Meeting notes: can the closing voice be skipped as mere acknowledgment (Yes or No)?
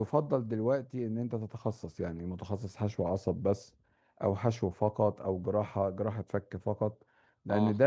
Yes